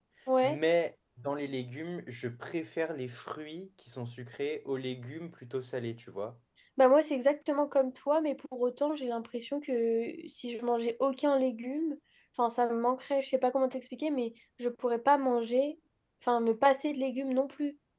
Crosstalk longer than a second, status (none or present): none